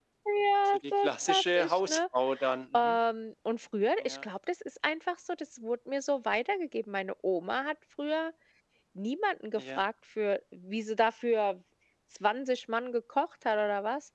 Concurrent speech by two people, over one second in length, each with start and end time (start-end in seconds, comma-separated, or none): 0.7-2.0